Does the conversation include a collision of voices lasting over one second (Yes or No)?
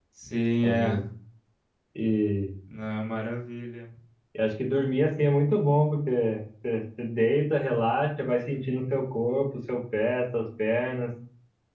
No